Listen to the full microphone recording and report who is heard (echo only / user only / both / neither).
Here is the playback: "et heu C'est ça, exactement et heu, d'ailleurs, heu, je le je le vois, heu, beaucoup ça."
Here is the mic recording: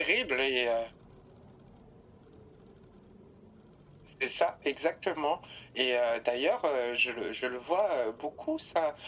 echo only